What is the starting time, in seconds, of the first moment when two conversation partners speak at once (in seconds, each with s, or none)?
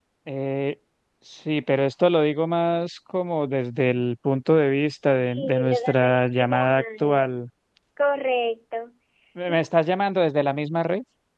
5.3 s